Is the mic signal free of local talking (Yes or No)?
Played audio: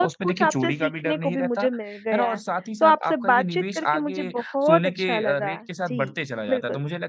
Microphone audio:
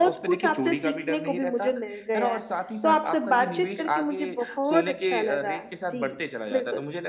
Yes